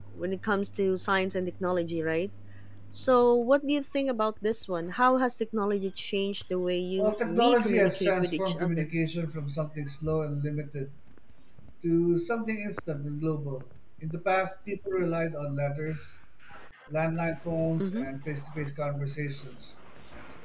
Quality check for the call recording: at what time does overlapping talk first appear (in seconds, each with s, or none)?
7.0 s